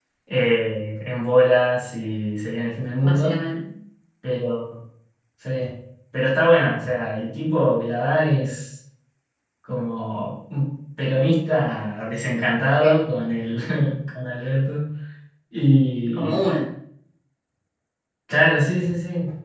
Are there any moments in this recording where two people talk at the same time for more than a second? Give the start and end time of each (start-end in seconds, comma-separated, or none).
none